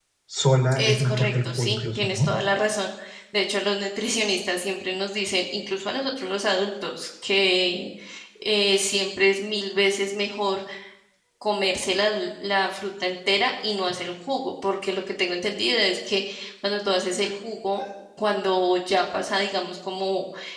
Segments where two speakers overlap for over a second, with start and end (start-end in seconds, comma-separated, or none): 0.7-2.3